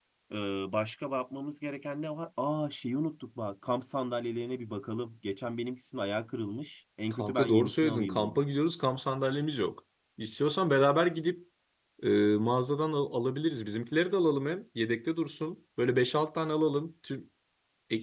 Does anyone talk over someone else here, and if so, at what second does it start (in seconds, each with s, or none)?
7.1 s